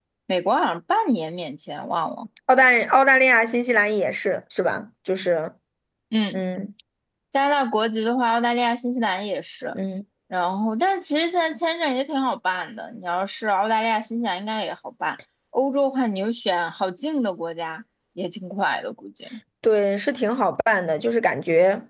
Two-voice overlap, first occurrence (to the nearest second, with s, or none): none